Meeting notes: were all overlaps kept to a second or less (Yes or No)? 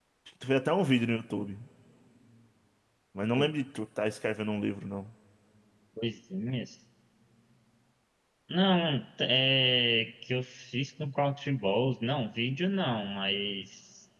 Yes